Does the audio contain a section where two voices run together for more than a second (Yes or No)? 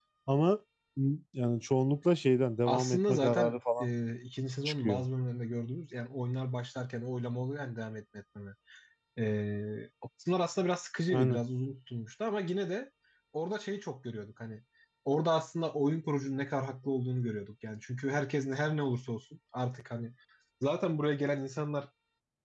Yes